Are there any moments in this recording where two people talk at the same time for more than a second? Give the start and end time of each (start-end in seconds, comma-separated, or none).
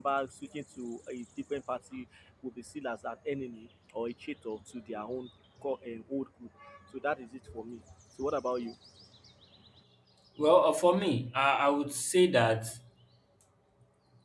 none